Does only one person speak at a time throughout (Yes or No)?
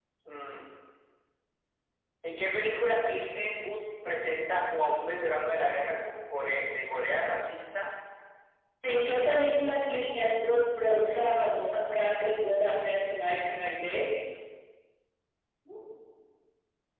Yes